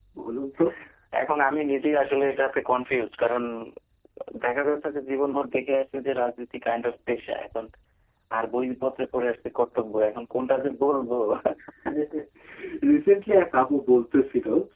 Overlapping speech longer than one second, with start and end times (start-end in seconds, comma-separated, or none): none